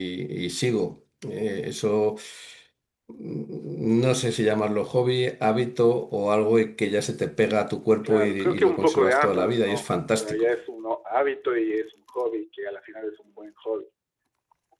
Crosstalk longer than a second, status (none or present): present